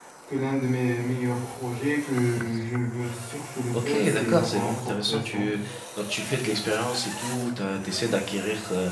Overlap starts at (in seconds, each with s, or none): 3.7 s